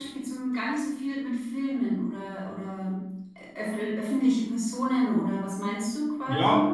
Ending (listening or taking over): taking over